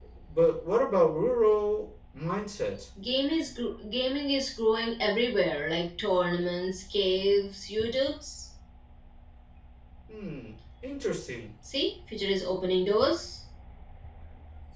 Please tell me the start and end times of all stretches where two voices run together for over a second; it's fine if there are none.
none

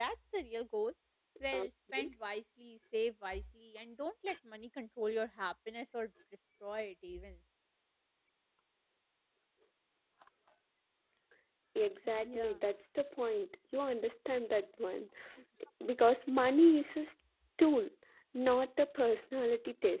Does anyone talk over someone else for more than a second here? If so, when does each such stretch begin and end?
none

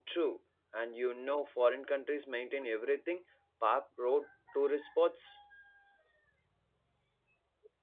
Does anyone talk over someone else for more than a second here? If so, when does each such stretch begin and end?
none

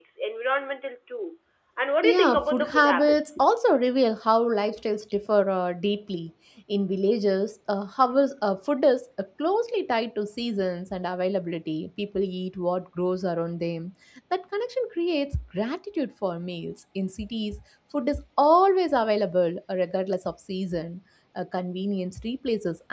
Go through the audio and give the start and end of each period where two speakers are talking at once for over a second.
2.0-3.4

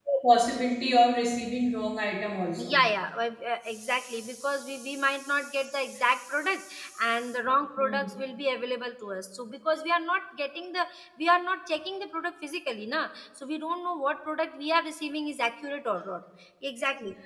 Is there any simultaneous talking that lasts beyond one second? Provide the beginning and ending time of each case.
none

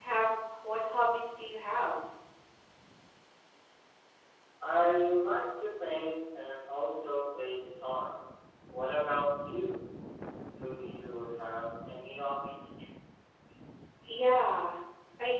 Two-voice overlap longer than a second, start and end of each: none

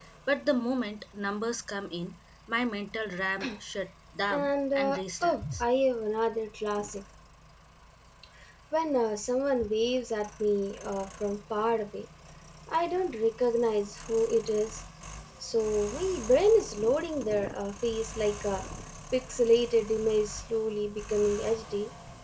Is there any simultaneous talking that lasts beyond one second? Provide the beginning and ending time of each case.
4.3-5.6

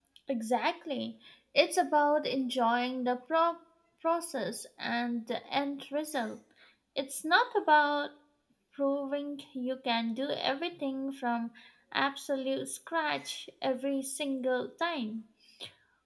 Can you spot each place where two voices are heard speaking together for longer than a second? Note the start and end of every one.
none

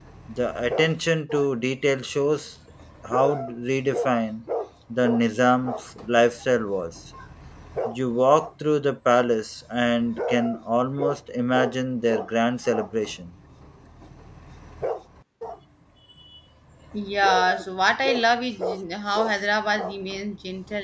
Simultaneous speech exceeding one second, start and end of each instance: none

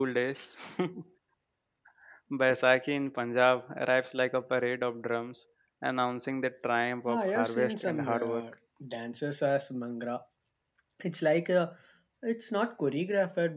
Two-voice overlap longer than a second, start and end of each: 7.1-8.4

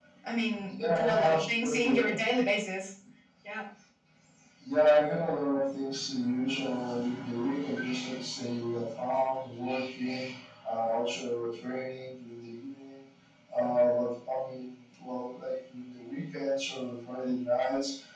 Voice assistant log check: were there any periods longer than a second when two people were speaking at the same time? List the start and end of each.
0.8-2.2

